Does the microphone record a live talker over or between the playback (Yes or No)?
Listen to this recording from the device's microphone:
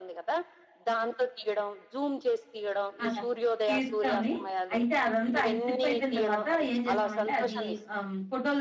Yes